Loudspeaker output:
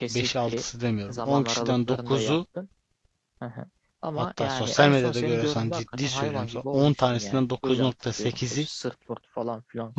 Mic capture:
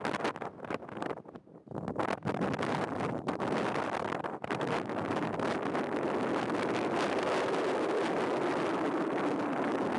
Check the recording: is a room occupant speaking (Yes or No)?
No